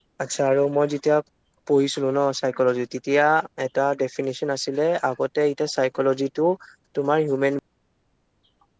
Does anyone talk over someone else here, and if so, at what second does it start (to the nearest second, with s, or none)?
none